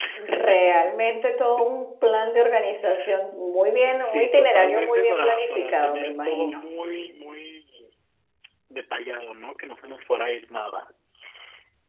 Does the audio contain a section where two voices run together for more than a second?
Yes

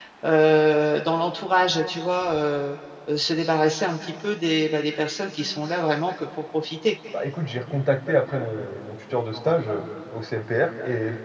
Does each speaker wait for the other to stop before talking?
Yes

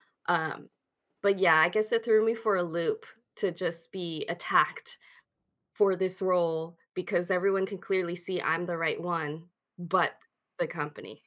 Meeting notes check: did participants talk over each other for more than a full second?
No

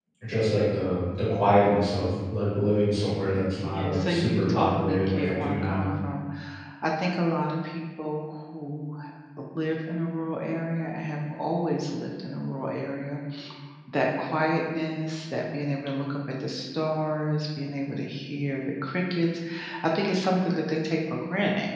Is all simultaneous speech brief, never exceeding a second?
No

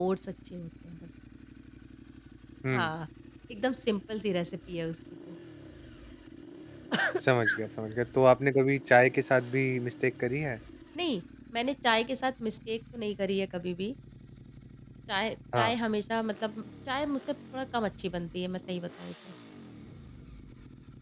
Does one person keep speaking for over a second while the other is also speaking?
No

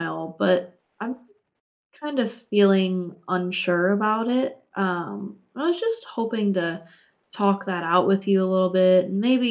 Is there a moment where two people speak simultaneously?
No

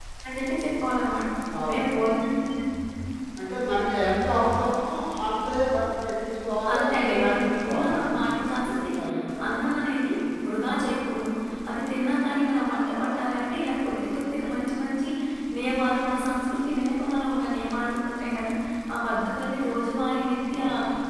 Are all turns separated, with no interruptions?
No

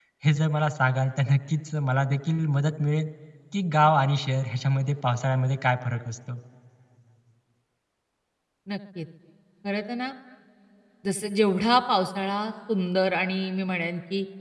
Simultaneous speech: No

